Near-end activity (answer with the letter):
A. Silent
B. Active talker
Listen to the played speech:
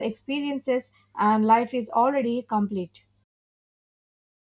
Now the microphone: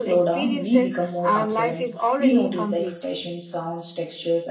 B